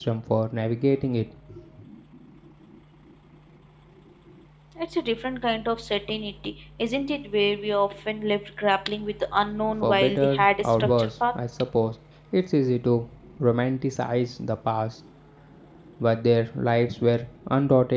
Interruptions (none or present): present